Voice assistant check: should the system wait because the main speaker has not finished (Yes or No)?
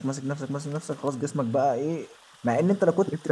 Yes